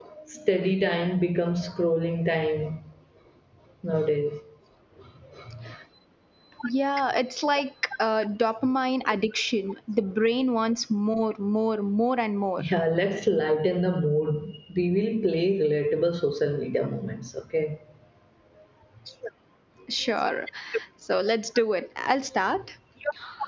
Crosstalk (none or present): none